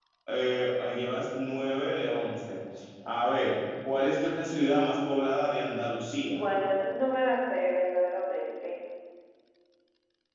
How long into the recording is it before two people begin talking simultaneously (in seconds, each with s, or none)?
none